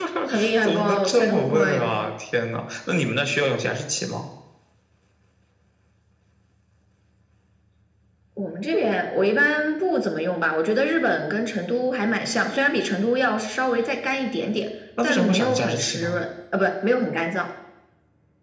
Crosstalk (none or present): present